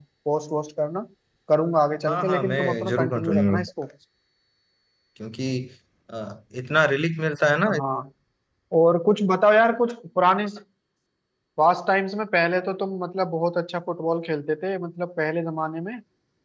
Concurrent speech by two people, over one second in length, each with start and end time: 2.1-3.7

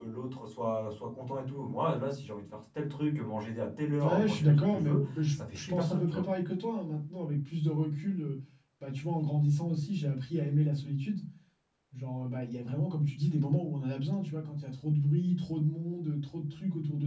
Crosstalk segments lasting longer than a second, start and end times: 4.0-6.2

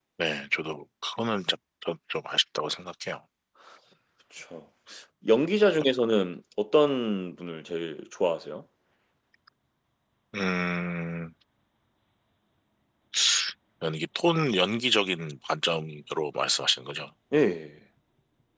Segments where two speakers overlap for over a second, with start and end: none

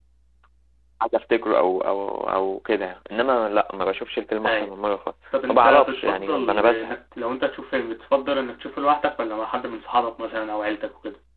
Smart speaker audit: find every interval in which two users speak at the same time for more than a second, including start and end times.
5.5-6.9

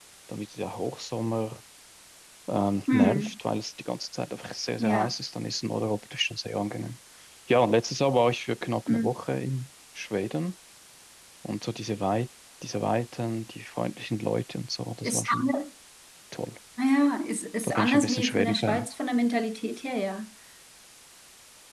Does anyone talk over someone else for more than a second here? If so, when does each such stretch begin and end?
17.6-18.9

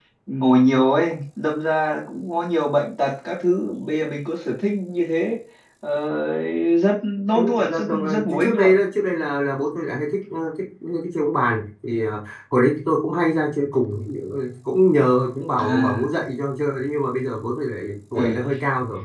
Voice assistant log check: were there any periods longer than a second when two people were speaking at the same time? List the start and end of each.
7.4-8.7

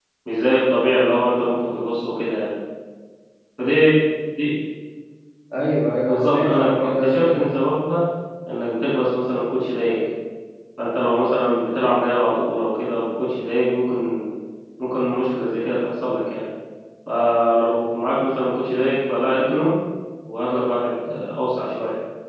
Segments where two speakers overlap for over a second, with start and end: 6.1-7.5

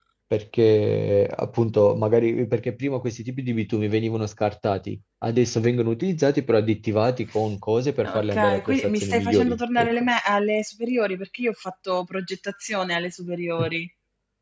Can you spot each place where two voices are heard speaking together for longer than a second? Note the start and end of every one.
8.0-9.9

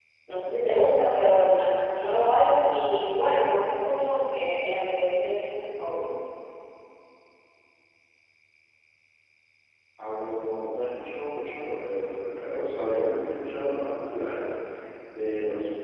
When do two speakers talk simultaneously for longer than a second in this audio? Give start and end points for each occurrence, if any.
none

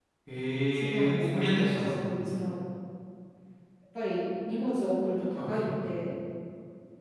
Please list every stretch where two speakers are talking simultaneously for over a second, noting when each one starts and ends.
0.7-2.1

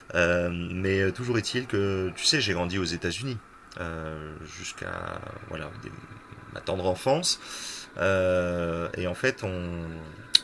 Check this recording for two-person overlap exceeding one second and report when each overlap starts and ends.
none

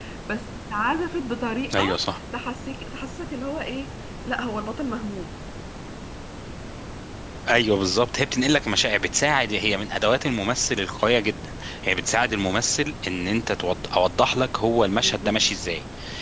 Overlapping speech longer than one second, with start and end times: none

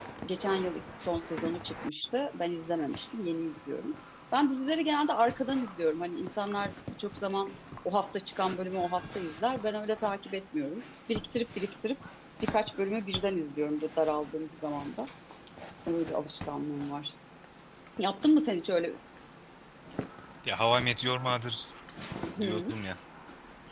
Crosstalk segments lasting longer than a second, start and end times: none

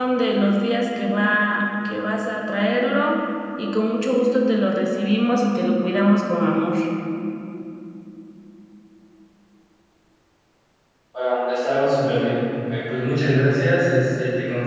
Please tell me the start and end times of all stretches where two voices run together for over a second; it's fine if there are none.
none

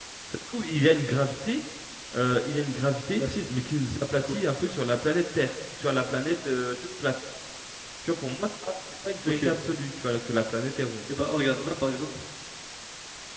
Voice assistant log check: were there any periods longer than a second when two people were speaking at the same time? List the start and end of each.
none

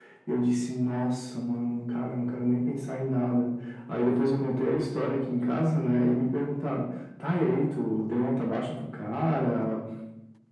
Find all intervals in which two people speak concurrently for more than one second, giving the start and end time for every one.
none

